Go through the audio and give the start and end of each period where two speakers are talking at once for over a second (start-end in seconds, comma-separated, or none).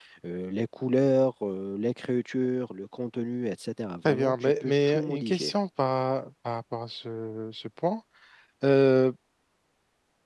4.0-5.5